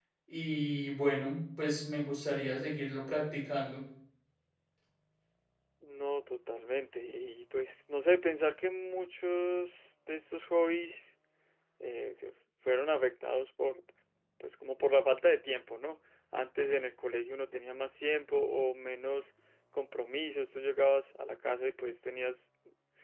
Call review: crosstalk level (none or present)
none